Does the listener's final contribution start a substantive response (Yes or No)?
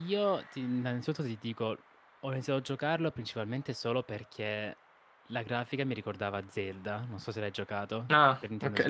Yes